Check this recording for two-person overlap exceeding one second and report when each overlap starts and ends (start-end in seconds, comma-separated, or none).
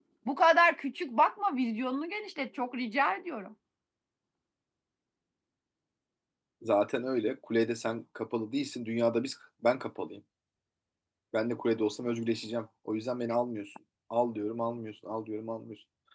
none